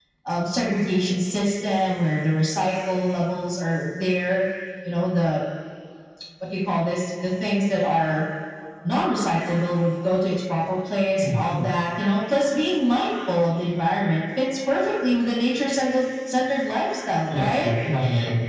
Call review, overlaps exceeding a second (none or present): none